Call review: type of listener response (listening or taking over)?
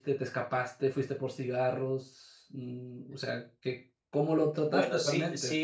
taking over